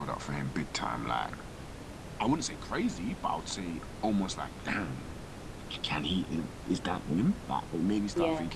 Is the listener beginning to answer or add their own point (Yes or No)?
No